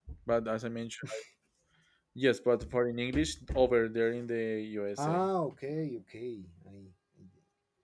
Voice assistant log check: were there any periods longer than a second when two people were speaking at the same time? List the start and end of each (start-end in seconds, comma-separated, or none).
none